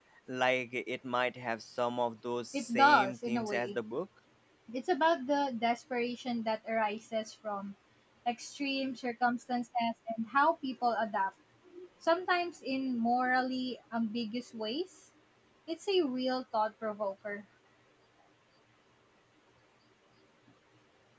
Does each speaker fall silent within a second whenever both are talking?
No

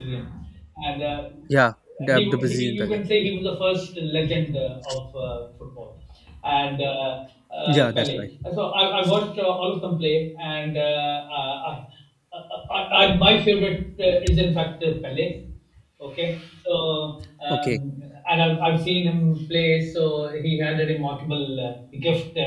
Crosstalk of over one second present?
Yes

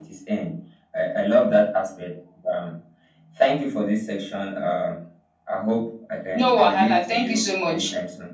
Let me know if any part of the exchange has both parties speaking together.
Yes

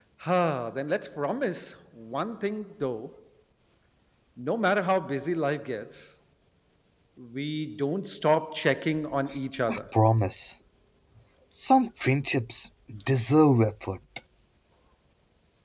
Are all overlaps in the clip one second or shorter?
Yes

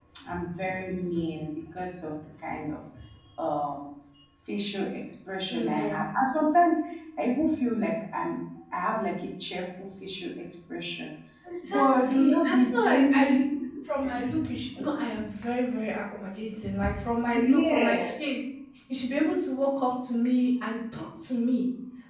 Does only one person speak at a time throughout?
No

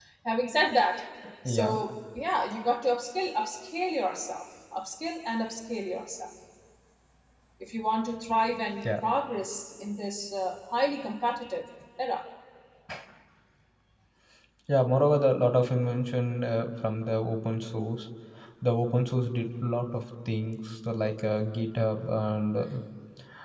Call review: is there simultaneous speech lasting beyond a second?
No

